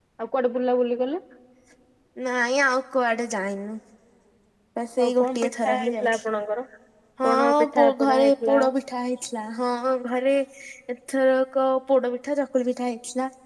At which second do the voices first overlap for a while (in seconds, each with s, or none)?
5.0 s